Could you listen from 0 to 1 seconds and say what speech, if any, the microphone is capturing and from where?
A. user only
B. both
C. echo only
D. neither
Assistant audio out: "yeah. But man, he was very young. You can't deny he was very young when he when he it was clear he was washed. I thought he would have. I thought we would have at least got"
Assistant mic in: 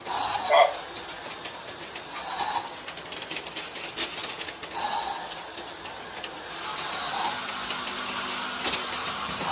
A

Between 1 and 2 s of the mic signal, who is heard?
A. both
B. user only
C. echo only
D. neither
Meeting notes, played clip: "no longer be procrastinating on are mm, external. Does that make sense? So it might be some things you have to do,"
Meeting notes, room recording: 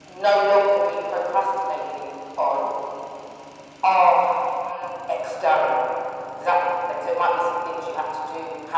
C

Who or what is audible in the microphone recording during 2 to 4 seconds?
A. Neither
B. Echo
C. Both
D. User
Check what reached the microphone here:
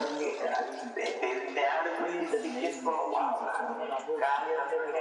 C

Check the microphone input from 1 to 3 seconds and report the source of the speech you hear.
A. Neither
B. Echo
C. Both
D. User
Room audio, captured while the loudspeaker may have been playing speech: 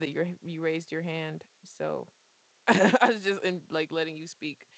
D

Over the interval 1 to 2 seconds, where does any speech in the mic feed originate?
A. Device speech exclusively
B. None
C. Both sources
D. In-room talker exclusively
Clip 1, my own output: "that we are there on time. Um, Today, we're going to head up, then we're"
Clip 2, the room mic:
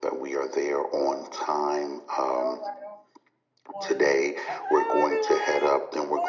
A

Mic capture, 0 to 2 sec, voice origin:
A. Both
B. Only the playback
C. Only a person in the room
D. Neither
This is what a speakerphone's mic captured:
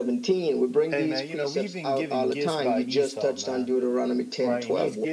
A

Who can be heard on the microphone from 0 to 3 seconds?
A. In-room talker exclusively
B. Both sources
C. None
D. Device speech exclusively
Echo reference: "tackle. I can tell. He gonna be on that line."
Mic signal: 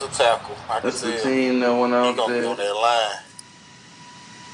B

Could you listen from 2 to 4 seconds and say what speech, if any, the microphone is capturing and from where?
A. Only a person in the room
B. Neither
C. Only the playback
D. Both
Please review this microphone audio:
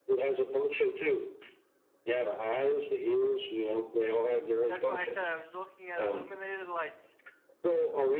C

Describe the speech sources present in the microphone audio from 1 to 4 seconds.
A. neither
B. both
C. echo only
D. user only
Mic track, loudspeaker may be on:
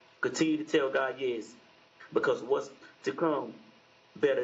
D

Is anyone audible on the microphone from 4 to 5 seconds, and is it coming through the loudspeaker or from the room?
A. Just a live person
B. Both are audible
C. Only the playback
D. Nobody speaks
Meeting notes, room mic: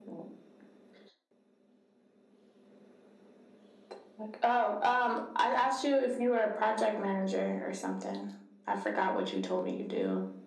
C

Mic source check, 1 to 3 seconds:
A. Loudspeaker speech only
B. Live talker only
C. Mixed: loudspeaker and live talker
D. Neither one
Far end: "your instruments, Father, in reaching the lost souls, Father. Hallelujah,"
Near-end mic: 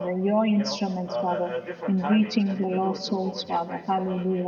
C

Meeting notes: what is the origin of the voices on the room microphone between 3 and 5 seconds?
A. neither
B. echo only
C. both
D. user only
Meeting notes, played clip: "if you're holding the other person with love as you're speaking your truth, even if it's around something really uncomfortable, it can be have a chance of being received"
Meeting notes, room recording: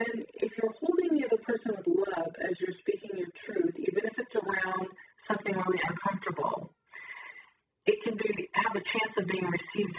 B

